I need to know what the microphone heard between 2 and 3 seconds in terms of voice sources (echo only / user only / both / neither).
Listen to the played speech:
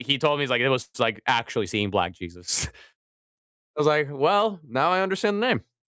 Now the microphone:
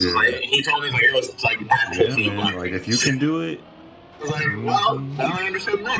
both